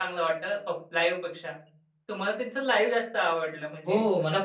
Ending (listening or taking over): taking over